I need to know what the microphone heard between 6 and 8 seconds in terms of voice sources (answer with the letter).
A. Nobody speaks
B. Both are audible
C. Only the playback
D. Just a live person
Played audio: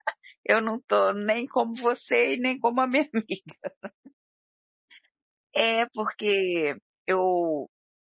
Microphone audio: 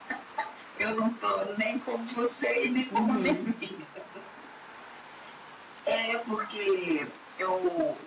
C